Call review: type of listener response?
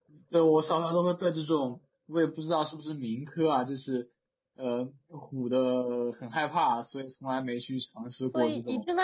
taking over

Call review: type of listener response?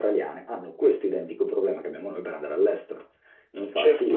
listening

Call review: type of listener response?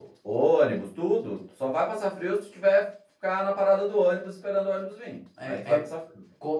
taking over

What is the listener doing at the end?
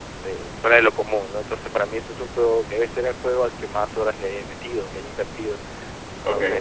listening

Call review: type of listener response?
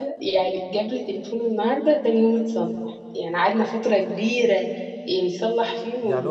taking over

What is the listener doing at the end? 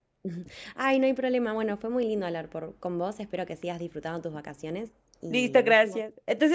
taking over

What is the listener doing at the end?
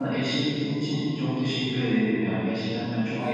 listening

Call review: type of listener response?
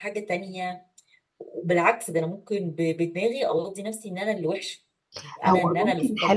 taking over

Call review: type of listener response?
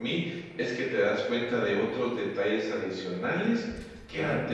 listening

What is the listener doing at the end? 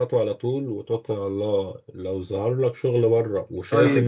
taking over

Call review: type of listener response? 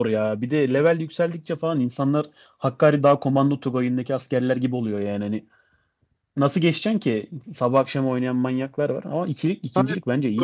taking over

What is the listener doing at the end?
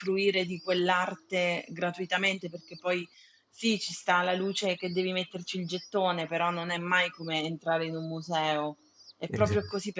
listening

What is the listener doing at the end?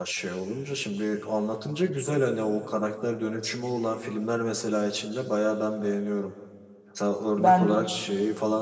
listening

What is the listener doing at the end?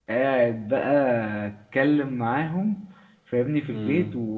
listening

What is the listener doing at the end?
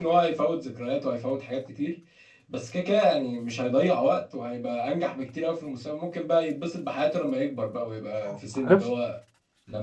listening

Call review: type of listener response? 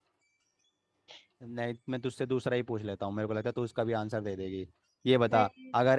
listening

